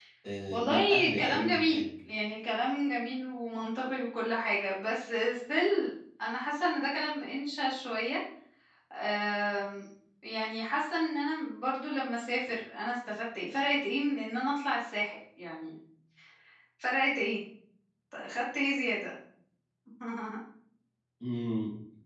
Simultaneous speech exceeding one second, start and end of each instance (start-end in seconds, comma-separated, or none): 0.5-1.8